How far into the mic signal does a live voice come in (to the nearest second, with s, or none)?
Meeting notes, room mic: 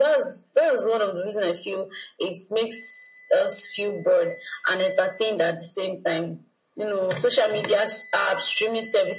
none